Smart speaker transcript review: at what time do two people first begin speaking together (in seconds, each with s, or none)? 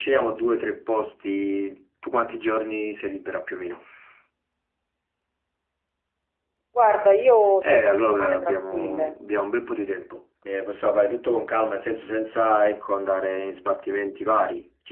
7.6 s